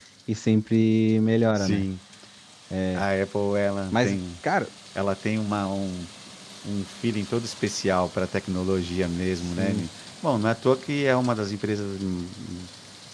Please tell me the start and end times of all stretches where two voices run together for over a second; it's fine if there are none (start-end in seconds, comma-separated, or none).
none